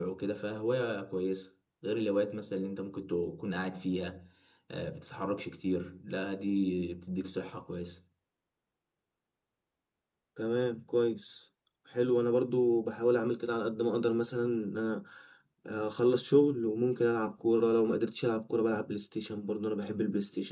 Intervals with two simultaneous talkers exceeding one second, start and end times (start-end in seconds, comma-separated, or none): none